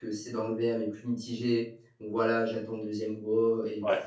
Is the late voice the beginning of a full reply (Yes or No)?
No